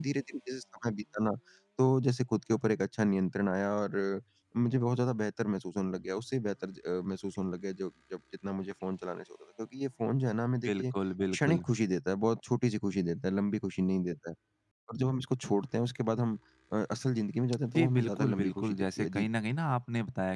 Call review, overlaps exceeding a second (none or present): present